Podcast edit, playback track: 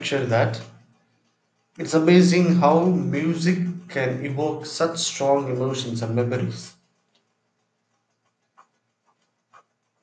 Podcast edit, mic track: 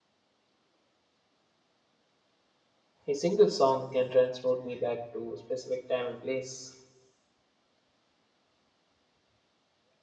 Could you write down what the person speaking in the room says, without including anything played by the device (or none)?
a single song can transport me back to a specific time and place.